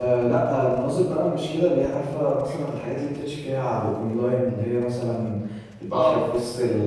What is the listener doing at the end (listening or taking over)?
listening